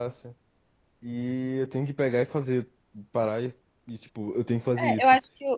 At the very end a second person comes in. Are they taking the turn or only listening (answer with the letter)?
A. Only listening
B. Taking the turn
B